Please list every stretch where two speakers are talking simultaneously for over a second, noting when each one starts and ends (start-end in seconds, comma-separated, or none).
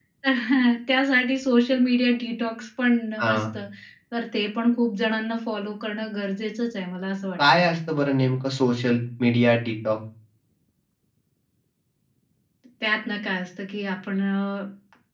none